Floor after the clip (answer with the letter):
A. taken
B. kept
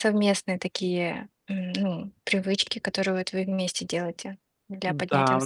A